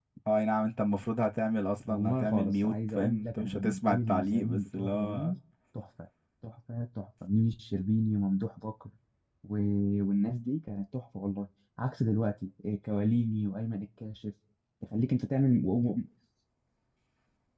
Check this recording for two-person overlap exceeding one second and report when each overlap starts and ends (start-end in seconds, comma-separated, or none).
1.9-5.3